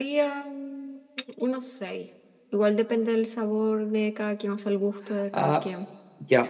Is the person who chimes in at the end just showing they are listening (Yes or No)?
No